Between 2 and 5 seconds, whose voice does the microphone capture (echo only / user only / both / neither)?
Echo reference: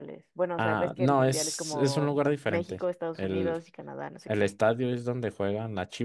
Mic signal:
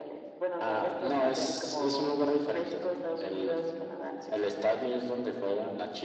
echo only